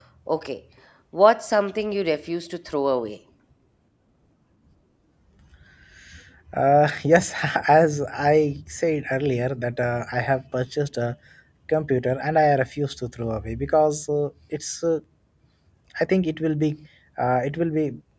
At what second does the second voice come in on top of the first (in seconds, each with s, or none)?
none